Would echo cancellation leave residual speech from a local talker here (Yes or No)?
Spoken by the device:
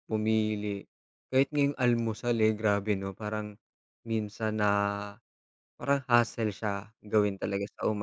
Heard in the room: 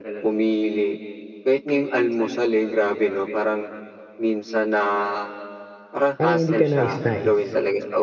Yes